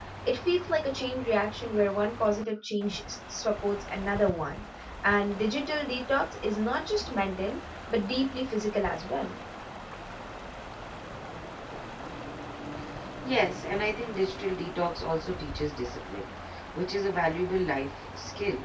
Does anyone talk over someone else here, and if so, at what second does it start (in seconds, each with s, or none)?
none